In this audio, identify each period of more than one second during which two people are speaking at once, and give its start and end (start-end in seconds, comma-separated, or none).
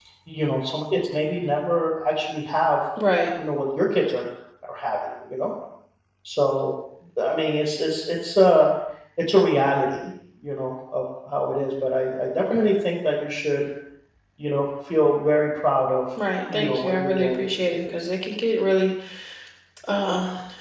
16.5-17.9